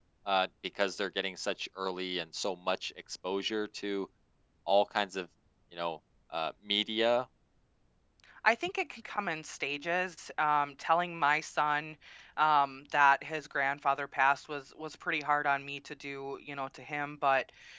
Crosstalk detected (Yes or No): No